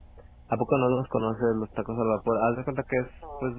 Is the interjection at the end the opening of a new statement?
No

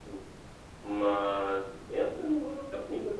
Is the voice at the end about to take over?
No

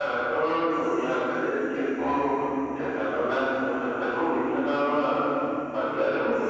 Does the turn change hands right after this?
Yes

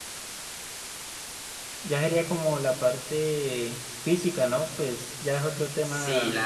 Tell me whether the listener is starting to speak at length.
Yes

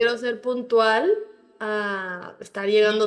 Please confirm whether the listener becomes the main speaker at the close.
Yes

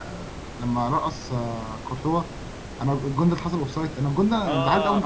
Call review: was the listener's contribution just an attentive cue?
No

